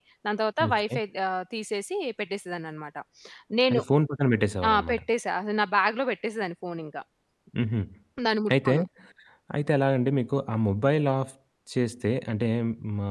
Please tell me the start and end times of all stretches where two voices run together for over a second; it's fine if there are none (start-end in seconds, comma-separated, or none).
none